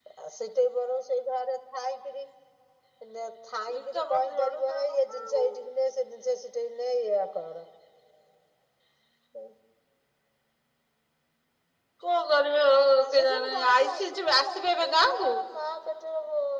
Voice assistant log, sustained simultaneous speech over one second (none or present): present